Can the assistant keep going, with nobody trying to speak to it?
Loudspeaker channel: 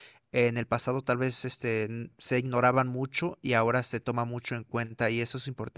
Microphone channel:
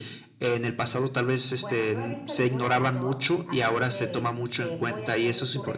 No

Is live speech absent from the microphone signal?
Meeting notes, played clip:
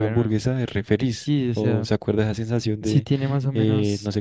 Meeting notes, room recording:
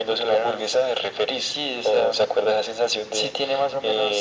Yes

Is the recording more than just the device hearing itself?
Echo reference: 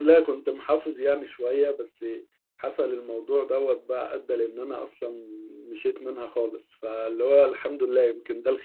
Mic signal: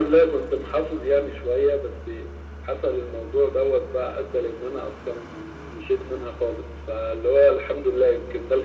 No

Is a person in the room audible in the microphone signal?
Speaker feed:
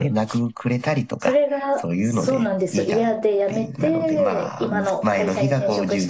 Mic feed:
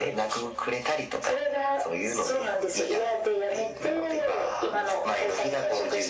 No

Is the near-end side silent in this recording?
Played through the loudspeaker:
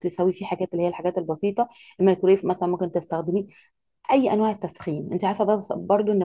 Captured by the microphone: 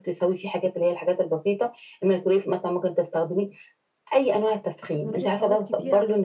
No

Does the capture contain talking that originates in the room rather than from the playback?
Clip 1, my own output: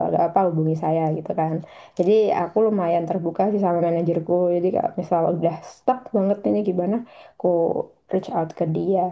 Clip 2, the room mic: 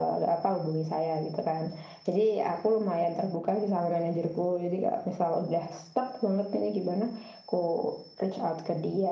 No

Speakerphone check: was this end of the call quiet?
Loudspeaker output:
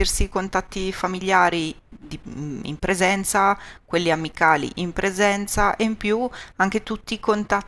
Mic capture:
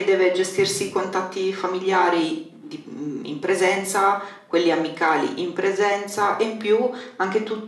Yes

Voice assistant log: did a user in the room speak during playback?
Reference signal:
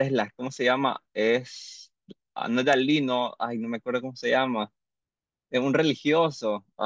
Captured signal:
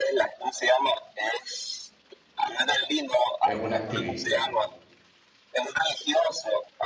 Yes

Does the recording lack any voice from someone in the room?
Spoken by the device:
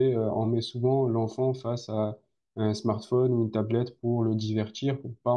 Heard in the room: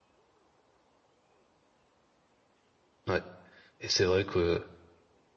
No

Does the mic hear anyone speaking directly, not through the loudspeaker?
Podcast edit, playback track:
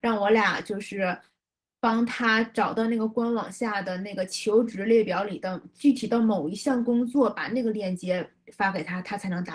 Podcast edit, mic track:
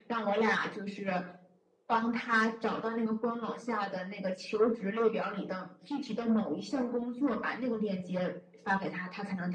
No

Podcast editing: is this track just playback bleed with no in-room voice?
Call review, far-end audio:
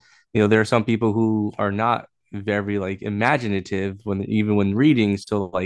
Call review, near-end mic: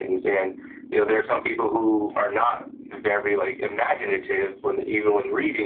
Yes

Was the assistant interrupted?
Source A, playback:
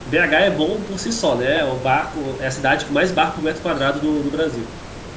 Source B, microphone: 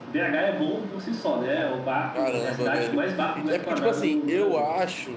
Yes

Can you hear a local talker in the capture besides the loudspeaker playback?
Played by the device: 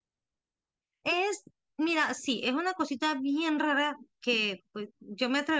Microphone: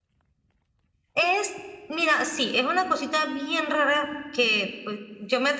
No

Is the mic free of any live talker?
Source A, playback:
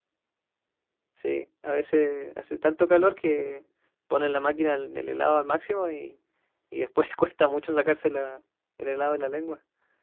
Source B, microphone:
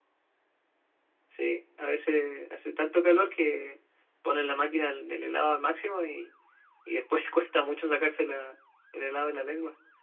Yes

